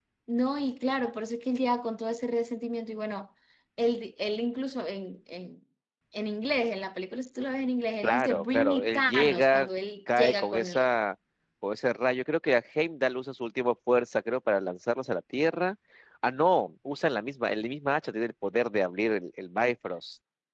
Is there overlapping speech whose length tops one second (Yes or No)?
Yes